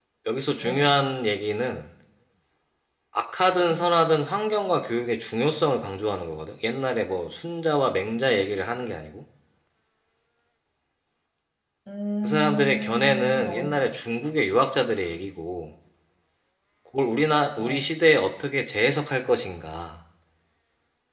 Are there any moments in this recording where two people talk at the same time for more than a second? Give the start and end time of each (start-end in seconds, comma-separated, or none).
12.2-13.7